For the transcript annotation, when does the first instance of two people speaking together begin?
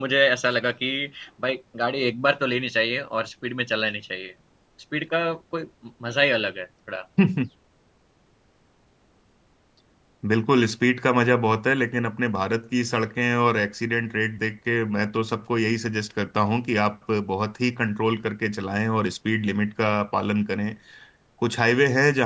none

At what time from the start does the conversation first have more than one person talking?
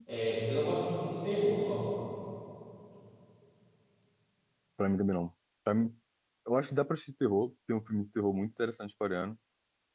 none

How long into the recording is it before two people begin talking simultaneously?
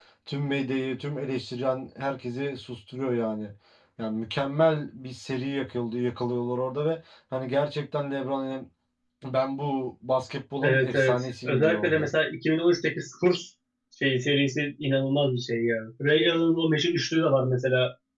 10.6 s

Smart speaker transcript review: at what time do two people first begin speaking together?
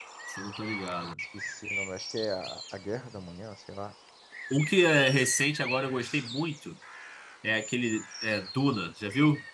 none

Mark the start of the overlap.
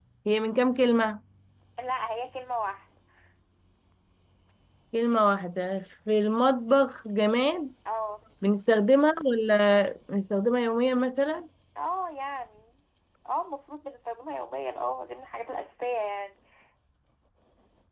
none

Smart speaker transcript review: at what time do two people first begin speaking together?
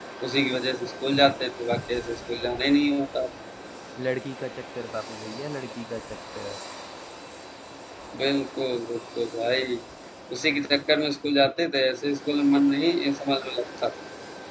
none

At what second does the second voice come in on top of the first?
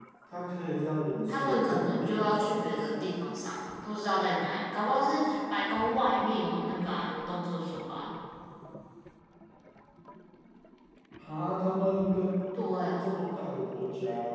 1.3 s

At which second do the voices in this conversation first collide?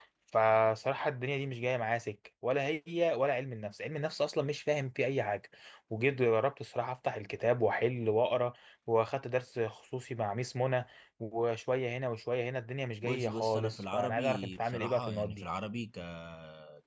13.0 s

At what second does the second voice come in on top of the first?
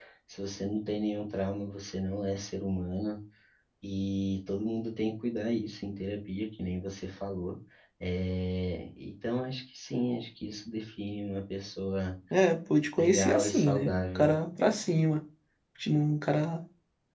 13.0 s

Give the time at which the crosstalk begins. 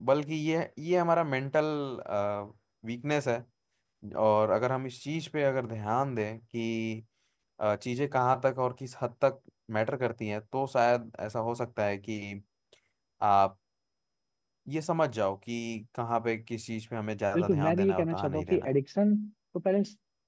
17.3 s

